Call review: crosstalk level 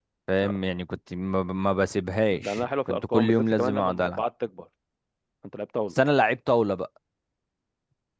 present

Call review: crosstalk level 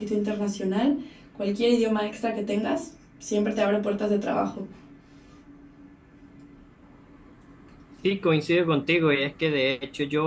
none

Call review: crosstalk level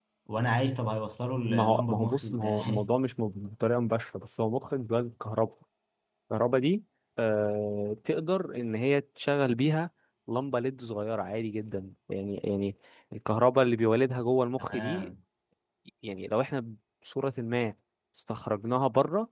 present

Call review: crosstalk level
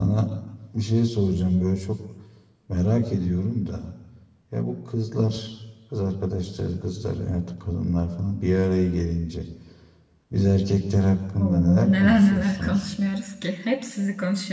present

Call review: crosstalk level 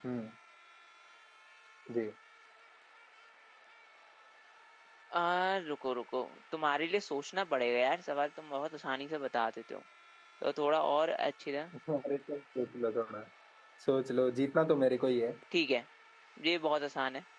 none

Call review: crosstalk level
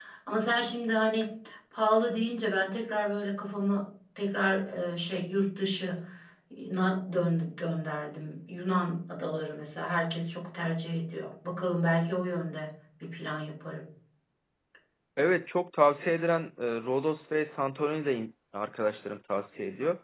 none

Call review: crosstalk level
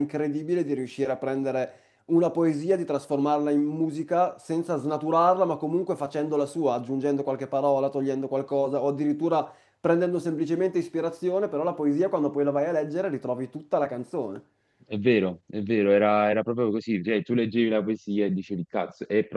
none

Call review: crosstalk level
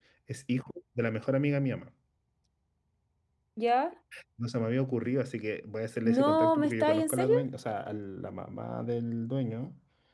present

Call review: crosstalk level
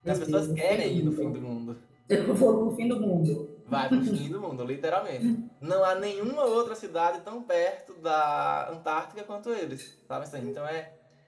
present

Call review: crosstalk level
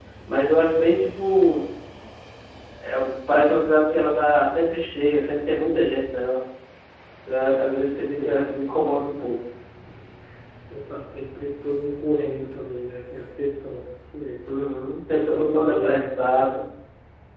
present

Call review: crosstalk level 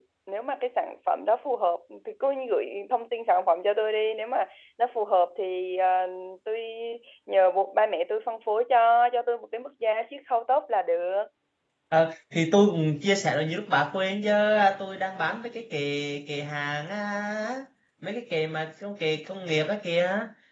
none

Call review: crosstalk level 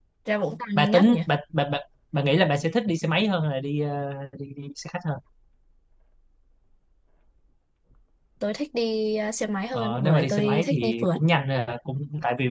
present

